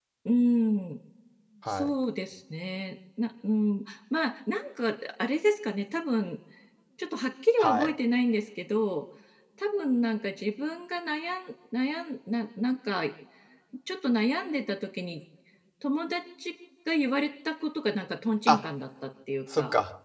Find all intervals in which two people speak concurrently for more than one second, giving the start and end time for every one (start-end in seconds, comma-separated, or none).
none